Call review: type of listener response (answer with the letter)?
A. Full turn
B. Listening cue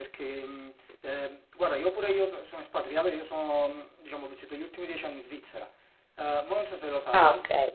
B